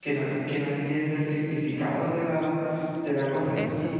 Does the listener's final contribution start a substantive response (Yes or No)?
No